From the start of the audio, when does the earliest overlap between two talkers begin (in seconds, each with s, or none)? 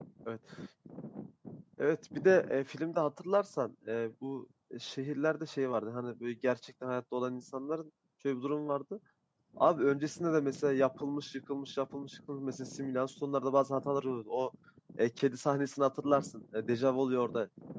none